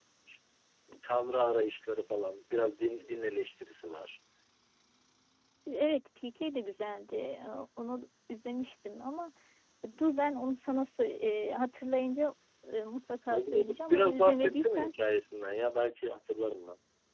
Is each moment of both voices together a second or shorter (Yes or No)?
No